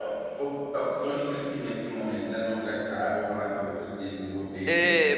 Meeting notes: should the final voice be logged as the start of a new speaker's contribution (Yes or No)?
Yes